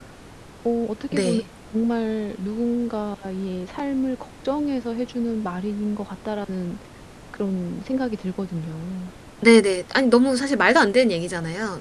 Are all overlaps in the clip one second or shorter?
Yes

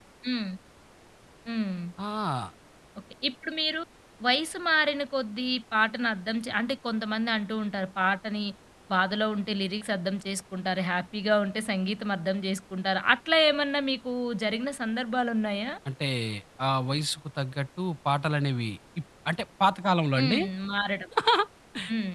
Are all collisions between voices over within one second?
Yes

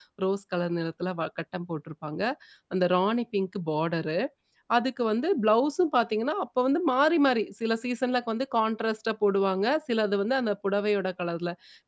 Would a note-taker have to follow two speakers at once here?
No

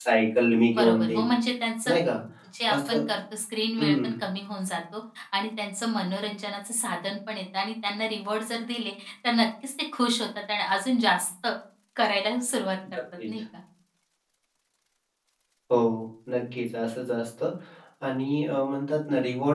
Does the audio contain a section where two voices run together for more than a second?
No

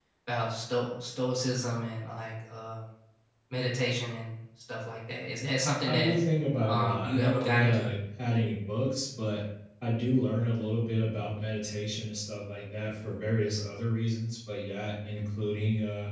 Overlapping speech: Yes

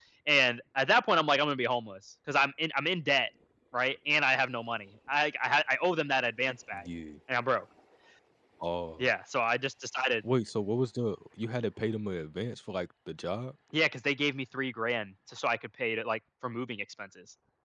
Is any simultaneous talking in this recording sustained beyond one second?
No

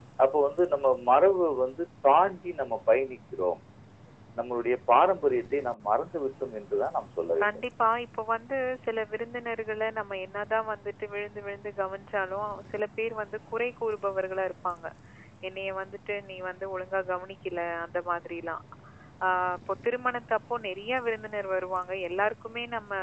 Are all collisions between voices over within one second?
Yes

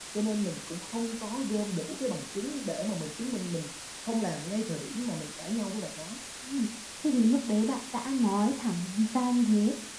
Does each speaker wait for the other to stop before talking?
Yes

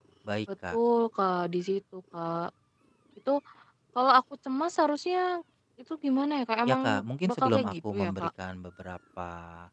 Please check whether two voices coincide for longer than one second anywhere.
Yes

